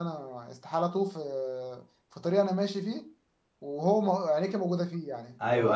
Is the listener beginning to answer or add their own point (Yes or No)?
Yes